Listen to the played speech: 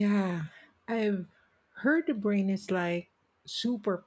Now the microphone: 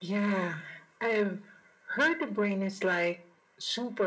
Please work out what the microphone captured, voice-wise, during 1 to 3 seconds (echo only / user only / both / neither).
echo only